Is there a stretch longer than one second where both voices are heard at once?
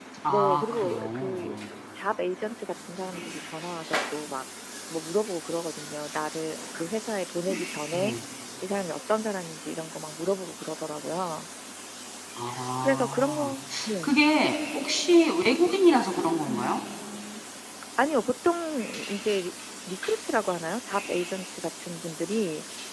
Yes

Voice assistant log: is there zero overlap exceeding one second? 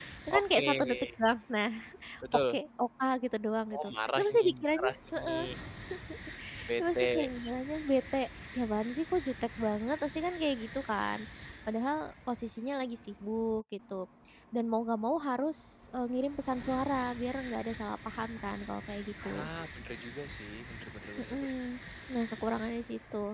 No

